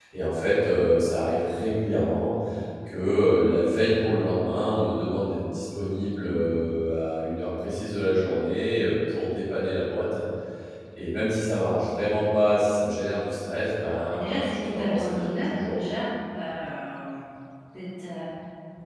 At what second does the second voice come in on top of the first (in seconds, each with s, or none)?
14.1 s